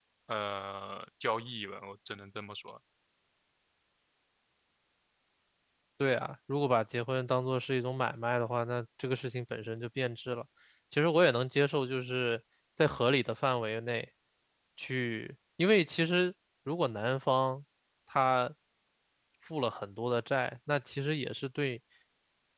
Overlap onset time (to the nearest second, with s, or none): none